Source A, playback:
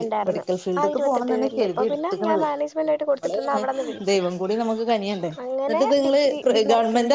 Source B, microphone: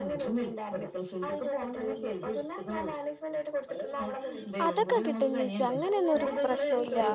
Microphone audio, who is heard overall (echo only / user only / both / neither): both